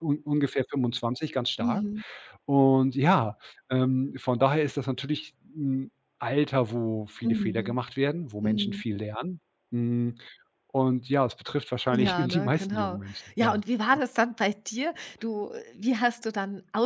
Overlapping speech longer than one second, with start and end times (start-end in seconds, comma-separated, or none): 11.9-13.6